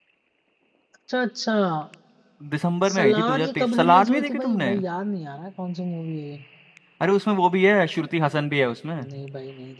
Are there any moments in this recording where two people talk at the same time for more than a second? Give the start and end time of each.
2.9-4.7

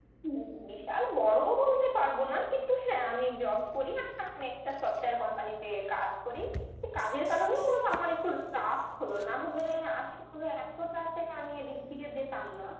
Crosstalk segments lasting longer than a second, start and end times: none

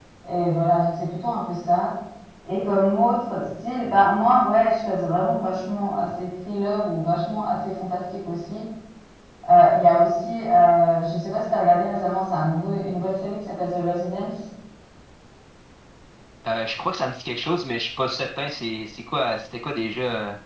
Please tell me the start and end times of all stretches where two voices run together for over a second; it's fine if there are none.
none

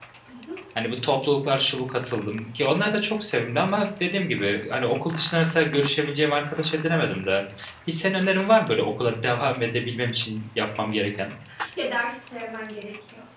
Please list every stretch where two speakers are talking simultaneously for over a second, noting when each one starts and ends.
none

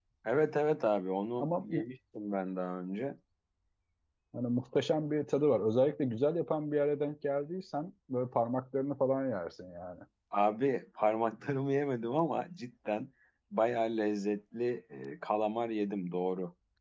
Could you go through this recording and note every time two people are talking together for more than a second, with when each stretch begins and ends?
none

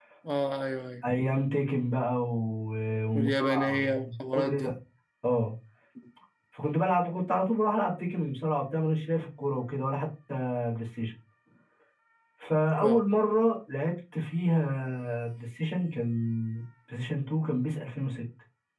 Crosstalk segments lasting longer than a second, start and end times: 3.1-4.7

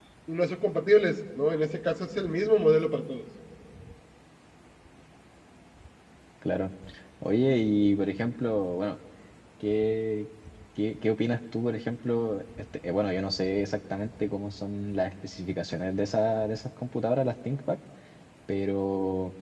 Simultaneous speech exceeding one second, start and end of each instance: none

